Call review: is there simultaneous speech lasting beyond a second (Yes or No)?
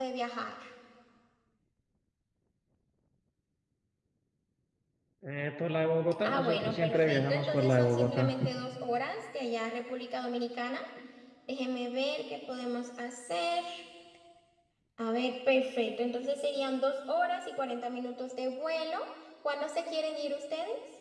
Yes